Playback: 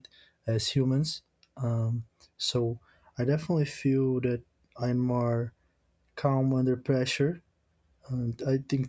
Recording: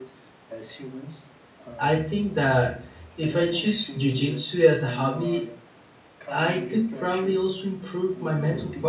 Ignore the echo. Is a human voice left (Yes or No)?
Yes